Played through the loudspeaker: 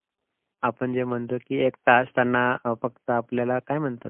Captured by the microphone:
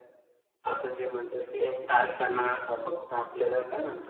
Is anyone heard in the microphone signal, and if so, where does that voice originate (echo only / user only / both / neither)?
echo only